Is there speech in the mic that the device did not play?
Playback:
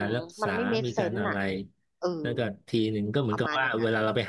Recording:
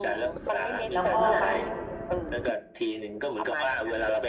Yes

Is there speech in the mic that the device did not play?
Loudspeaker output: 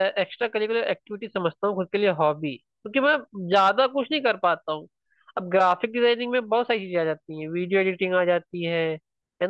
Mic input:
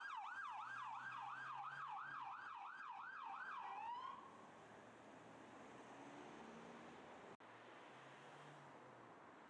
No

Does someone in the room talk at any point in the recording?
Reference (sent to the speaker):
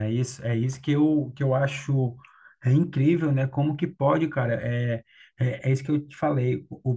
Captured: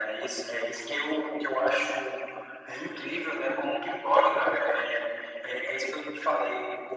No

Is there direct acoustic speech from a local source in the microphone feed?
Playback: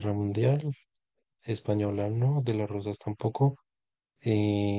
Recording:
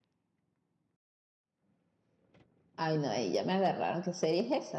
Yes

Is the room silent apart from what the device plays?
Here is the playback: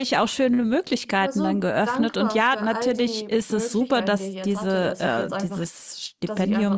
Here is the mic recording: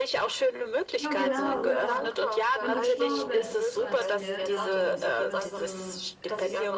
No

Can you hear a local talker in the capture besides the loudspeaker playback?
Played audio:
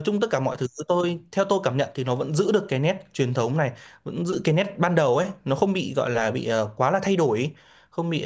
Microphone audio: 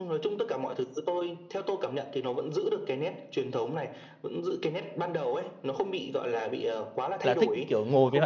Yes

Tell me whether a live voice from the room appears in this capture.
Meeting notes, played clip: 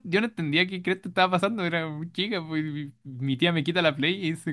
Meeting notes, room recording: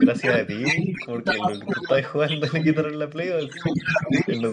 Yes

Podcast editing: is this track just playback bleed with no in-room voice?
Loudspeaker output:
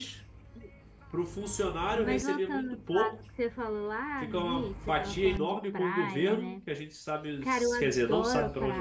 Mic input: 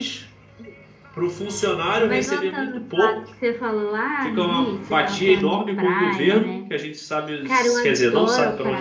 Yes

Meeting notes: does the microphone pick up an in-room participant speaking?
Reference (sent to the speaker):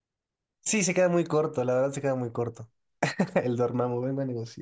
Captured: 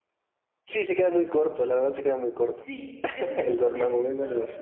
Yes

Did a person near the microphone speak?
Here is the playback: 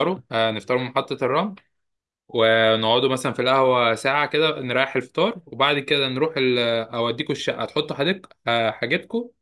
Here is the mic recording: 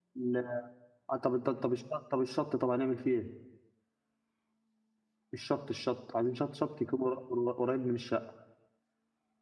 Yes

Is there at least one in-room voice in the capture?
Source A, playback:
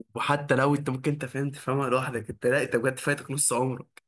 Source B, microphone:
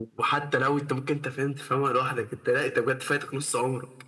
No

